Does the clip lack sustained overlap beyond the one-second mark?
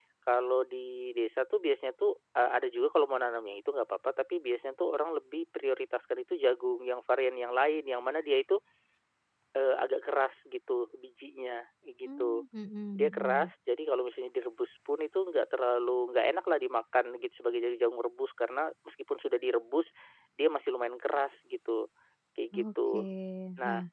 Yes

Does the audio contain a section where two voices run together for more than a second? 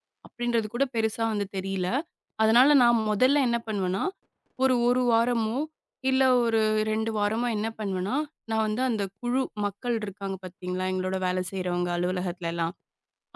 No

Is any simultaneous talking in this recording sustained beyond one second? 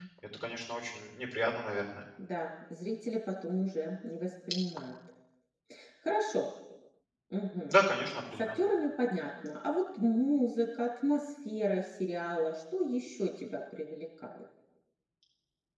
No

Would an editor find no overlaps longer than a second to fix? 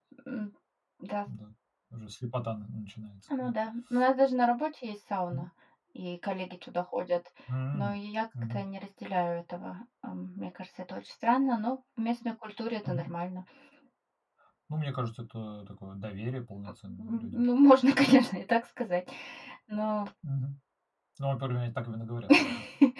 Yes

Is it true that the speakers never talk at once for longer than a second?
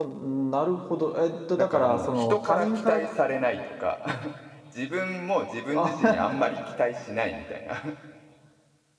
No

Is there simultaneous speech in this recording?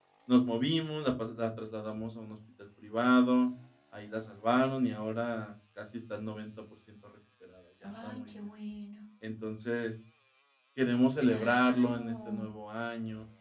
Yes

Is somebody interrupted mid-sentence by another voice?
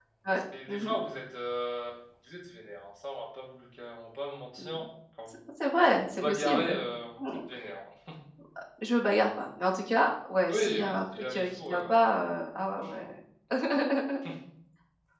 Yes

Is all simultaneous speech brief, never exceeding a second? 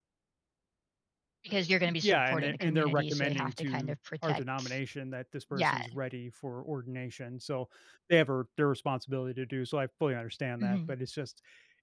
No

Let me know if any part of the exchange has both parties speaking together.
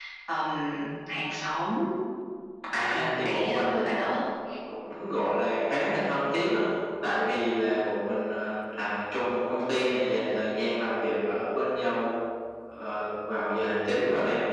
Yes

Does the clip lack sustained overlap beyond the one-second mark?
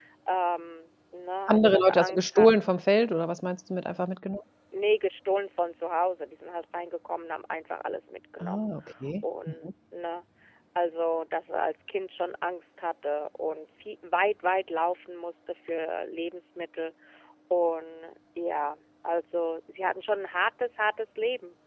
No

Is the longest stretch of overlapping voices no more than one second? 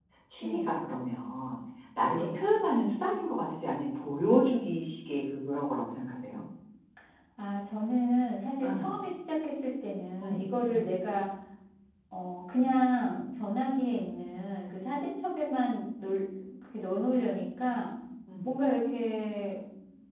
Yes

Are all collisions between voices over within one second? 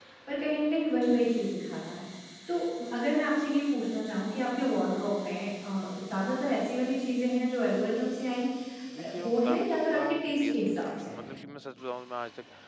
No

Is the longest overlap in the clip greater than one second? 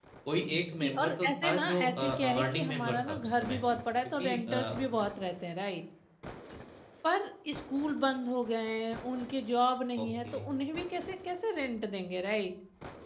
Yes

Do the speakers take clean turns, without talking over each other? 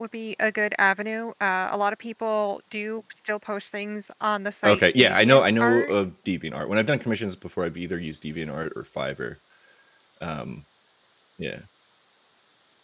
No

